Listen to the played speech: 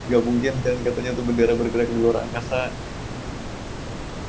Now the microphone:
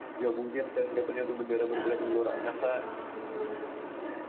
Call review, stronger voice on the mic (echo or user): echo